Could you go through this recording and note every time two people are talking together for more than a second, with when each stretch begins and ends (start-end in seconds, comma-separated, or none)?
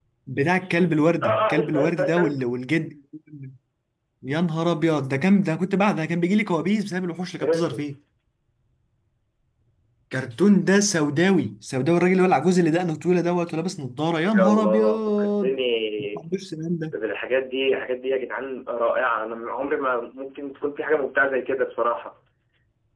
1.2-2.4, 14.3-15.6